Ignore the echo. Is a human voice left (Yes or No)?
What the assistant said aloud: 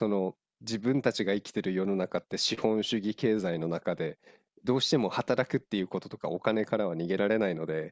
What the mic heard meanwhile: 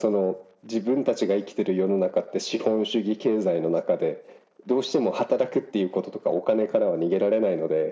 No